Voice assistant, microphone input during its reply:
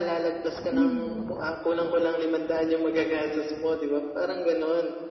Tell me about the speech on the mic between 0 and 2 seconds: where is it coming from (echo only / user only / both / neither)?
both